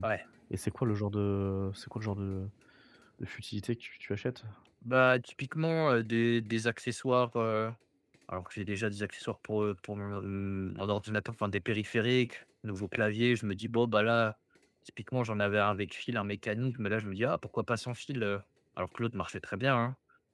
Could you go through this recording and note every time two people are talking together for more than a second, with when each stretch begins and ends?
none

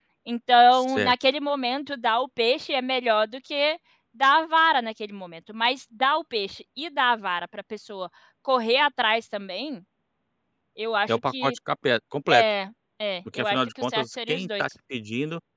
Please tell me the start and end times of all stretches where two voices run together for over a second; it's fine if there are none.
13.3-14.6

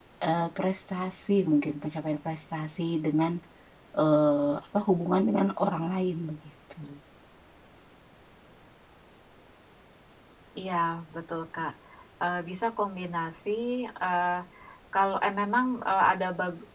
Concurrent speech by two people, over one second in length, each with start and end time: none

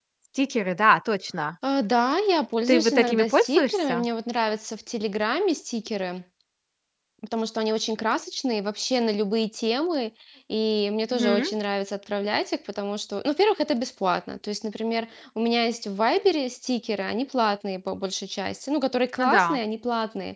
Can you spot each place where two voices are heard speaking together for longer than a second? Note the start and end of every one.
2.7-4.0

